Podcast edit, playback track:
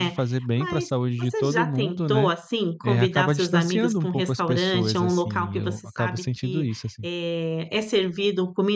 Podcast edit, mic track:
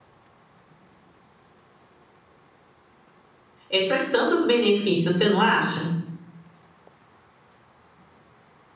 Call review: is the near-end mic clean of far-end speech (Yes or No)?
Yes